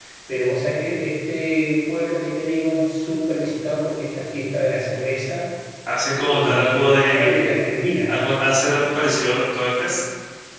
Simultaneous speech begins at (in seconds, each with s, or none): 6.2 s